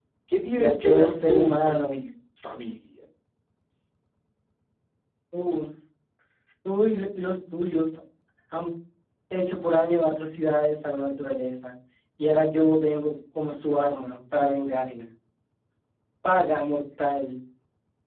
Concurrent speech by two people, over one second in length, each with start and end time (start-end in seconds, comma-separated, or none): 0.6-2.0